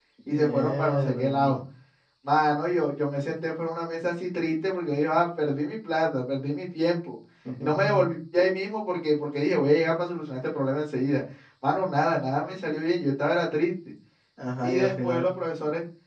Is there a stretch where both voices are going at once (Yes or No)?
Yes